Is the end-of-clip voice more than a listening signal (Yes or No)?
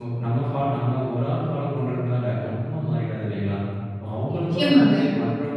No